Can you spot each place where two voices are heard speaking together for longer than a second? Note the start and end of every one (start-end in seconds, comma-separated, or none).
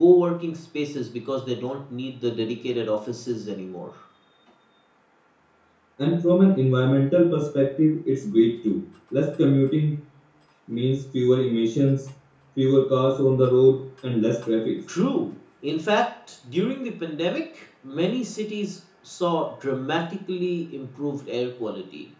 none